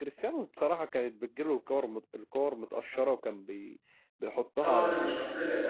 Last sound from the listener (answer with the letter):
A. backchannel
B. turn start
B